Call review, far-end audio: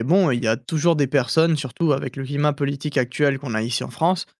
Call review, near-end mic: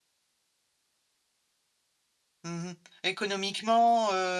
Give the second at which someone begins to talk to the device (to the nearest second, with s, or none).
2 s